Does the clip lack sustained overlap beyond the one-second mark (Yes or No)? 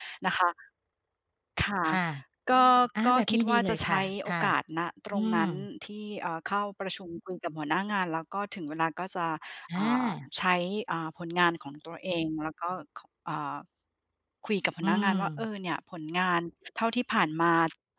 No